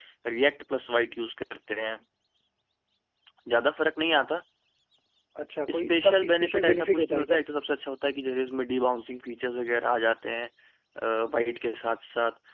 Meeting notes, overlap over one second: present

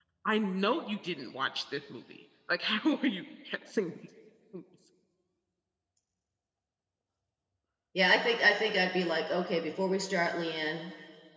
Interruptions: none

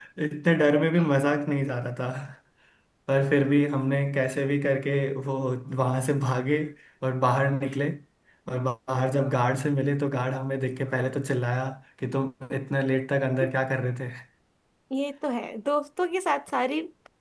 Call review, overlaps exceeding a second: none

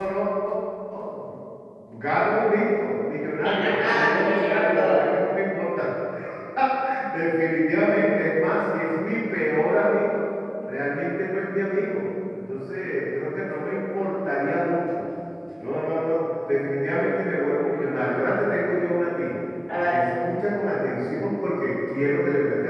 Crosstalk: present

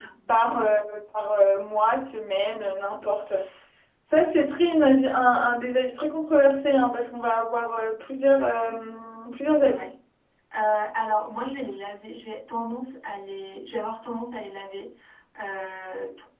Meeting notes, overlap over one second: none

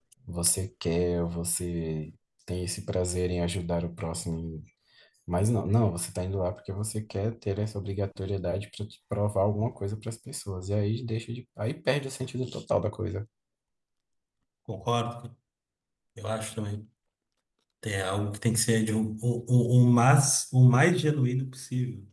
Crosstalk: none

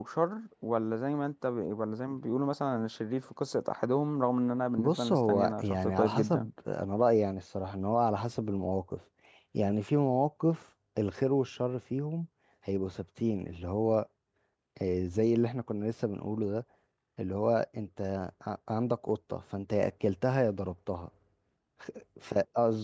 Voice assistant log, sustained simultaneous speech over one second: present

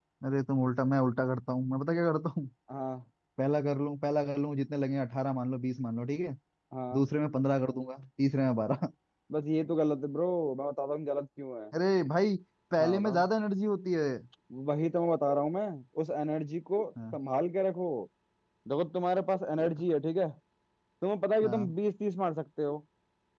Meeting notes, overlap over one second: none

